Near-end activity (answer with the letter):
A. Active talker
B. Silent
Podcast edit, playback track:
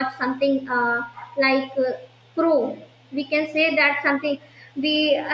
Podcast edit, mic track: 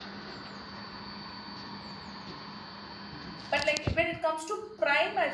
A